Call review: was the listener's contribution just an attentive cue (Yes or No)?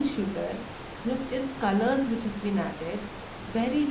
Yes